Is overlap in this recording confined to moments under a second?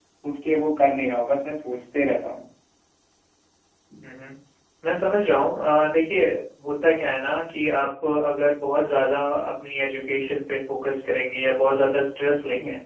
Yes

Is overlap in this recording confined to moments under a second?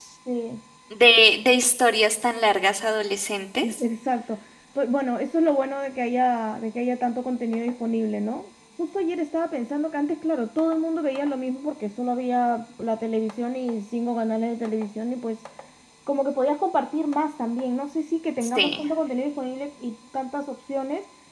Yes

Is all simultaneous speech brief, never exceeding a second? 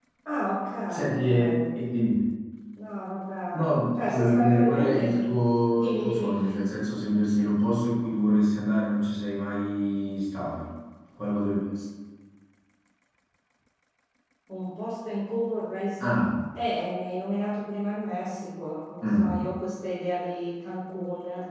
No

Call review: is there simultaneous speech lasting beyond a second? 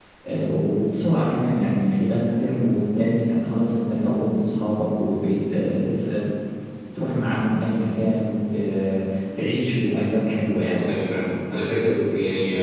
No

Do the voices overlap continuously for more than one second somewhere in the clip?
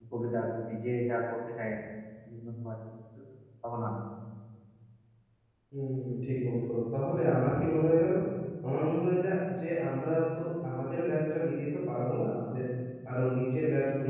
No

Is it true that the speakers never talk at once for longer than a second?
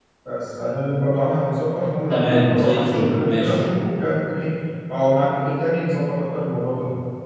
No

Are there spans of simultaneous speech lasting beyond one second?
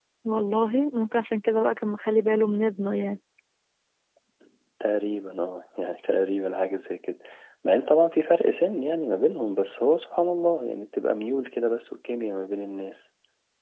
No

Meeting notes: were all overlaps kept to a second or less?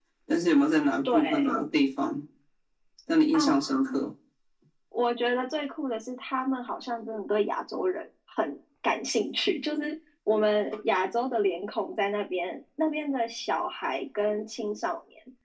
Yes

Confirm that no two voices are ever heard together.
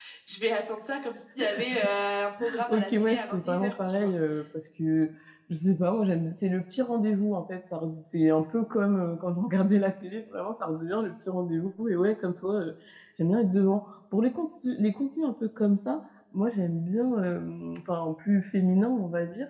No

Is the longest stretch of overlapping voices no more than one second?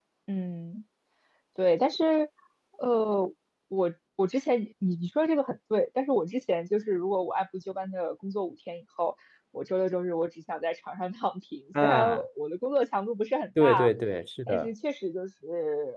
Yes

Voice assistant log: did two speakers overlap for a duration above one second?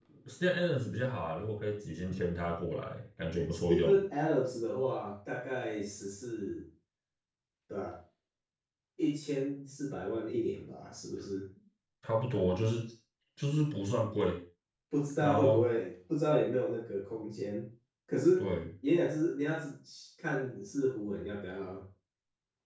No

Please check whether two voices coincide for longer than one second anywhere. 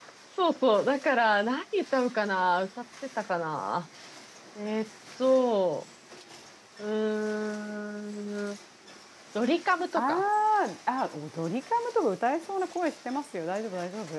No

